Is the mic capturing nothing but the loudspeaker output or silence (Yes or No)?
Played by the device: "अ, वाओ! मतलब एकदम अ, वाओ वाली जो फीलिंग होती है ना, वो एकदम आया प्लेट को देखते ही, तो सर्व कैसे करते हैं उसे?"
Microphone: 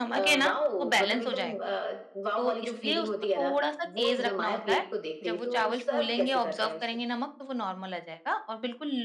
No